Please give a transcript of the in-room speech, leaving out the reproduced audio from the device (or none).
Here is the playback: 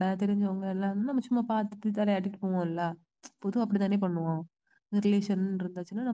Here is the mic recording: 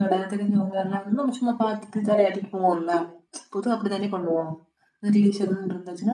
none